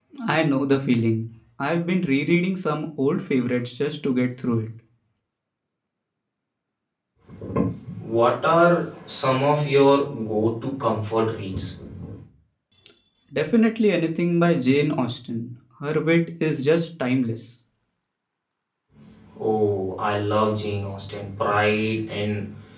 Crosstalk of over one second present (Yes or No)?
No